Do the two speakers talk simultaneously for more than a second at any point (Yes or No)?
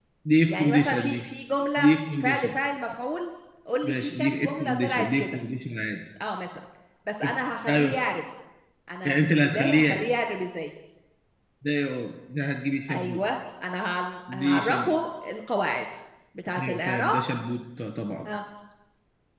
Yes